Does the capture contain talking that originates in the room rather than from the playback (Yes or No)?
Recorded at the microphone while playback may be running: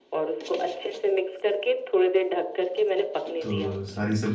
Yes